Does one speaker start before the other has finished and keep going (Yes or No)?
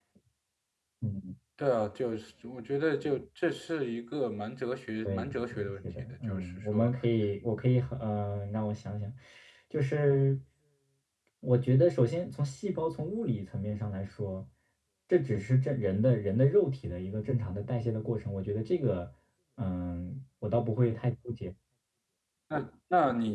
Yes